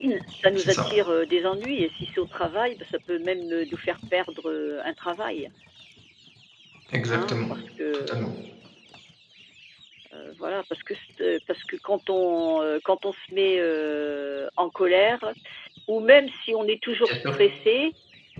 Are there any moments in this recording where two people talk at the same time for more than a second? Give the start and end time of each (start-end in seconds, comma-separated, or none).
none